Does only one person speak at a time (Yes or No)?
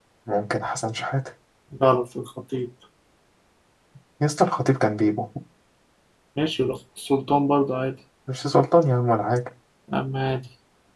Yes